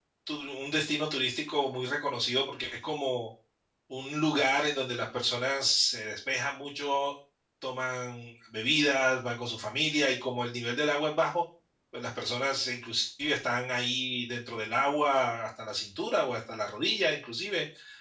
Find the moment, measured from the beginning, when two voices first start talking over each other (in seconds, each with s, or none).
none